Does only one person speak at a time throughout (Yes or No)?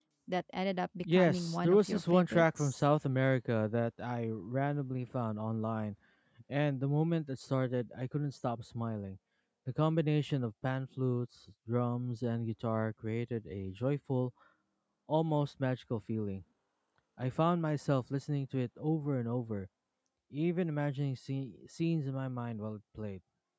No